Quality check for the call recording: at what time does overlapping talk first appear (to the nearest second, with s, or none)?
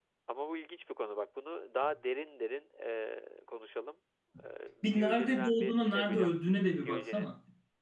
5 s